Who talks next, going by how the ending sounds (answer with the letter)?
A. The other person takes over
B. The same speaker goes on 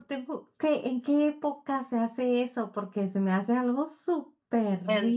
A